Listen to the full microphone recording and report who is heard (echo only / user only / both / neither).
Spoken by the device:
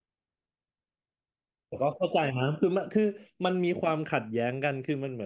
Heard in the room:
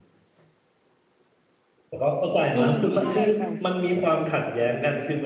both